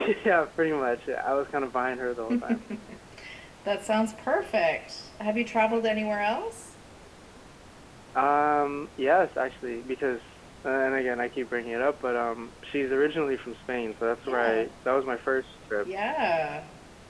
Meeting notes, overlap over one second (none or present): none